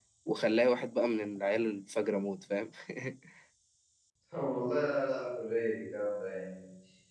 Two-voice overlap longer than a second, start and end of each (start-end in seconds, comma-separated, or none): none